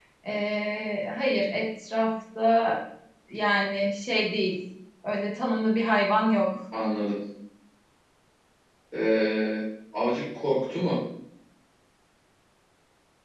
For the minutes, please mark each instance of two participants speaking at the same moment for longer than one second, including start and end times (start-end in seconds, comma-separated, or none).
none